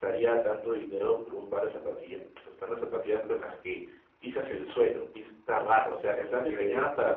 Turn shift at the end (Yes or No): No